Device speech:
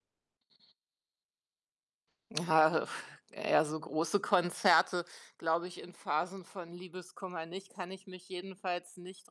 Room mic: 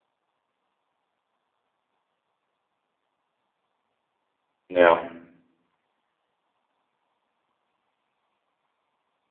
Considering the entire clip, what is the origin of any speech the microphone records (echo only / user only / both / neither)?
user only